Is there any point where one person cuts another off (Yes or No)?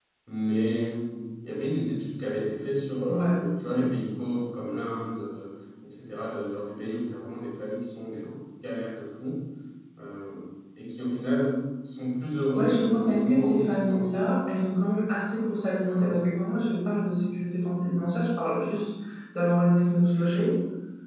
Yes